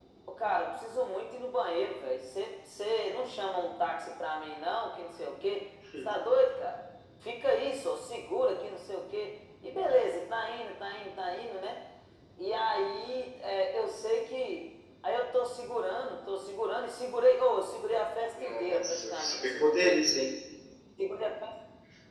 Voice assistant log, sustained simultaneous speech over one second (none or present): present